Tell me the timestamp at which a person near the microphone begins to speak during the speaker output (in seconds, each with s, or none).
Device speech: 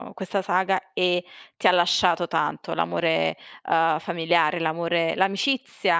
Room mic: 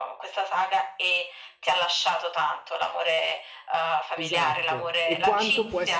4.2 s